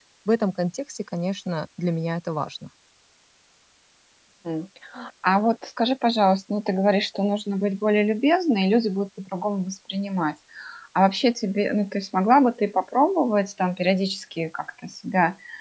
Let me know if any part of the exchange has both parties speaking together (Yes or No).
No